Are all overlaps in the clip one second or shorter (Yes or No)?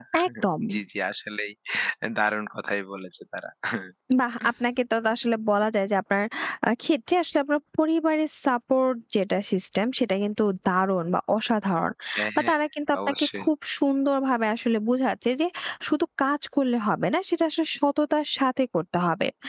Yes